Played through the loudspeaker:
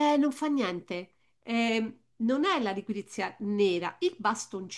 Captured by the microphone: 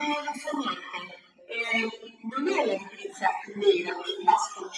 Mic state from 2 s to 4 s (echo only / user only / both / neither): echo only